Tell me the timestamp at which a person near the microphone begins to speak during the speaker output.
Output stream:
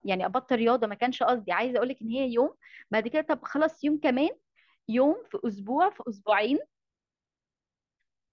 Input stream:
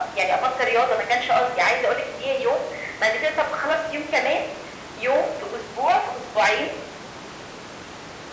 none

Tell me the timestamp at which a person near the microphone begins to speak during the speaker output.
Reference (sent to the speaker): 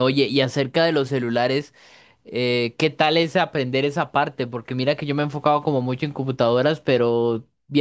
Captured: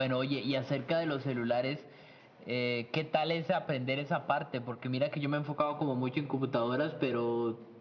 none

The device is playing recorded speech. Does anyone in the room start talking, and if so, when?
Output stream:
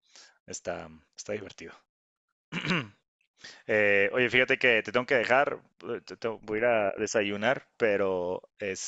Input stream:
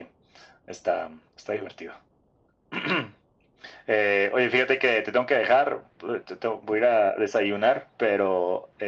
none

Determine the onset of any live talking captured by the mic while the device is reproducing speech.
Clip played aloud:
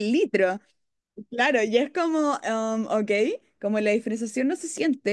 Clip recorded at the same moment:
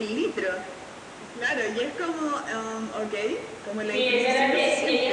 3.8 s

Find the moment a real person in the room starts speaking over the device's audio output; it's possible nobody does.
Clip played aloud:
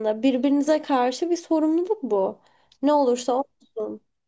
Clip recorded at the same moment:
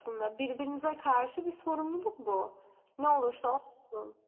none

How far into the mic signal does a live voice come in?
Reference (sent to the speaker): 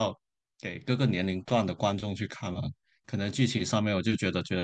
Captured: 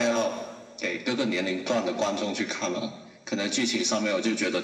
none

